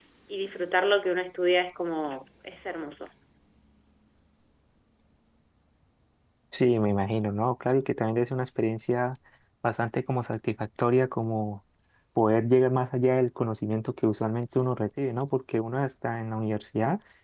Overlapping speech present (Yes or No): No